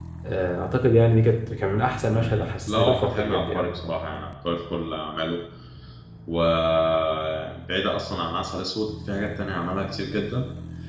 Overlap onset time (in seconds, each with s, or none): 2.1 s